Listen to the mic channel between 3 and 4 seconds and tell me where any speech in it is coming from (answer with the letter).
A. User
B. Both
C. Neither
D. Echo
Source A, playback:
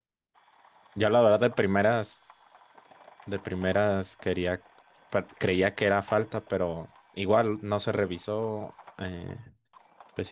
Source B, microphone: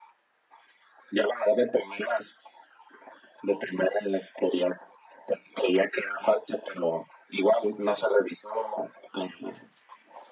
D